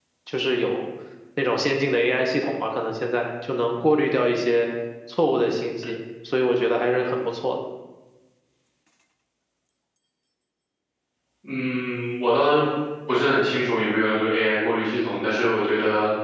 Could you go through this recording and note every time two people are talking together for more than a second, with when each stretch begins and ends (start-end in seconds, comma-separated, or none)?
none